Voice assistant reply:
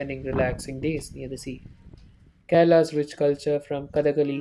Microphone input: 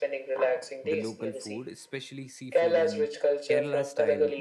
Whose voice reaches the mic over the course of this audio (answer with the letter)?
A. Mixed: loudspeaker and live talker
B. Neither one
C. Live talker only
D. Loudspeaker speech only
A